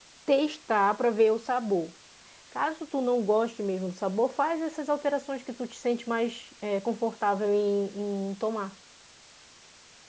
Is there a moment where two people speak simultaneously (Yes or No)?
No